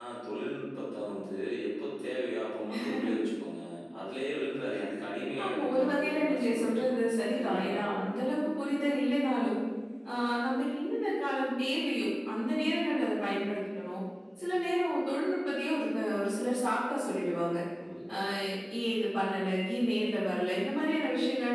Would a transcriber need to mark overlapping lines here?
Yes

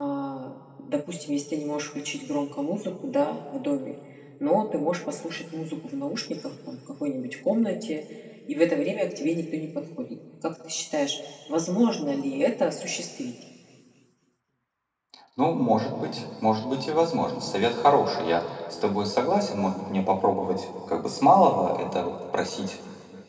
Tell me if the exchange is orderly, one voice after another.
Yes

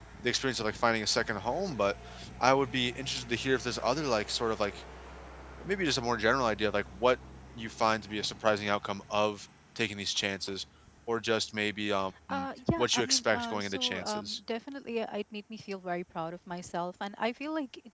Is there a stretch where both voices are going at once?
Yes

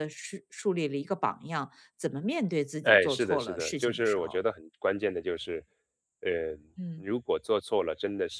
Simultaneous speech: Yes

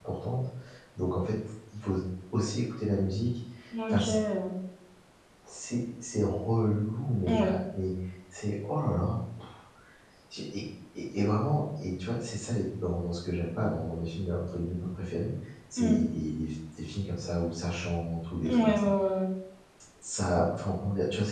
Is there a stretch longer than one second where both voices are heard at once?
No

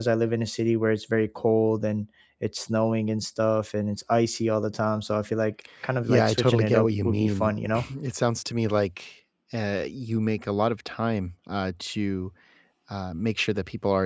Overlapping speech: Yes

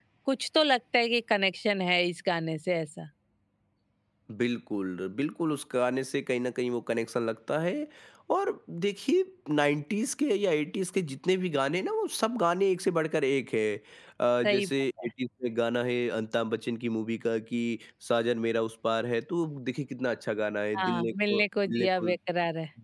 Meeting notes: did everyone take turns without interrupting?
No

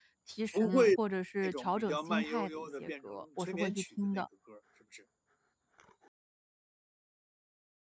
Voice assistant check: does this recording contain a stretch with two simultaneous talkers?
Yes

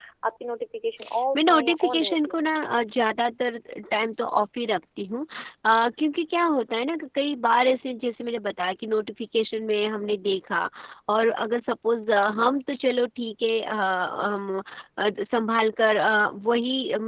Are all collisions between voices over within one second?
No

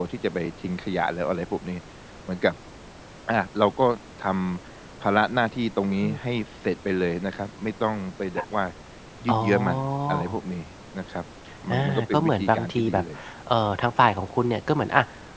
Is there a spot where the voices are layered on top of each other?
Yes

